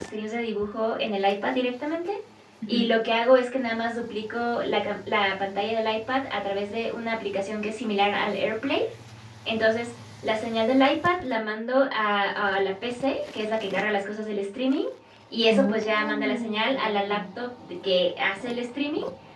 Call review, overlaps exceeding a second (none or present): present